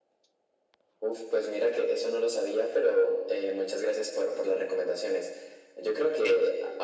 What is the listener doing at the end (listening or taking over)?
taking over